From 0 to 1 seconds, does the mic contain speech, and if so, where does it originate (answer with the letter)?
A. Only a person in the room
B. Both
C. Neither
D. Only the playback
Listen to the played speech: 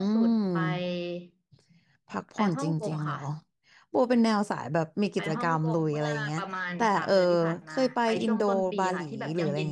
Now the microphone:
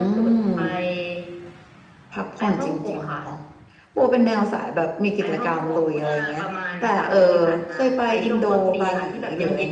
D